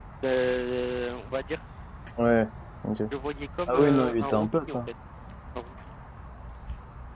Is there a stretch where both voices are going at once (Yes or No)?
Yes